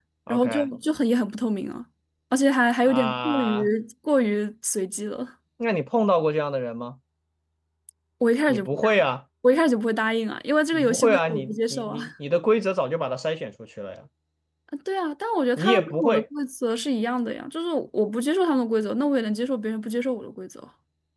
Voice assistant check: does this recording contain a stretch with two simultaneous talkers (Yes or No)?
Yes